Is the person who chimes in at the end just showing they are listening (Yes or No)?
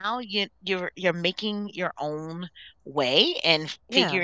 Yes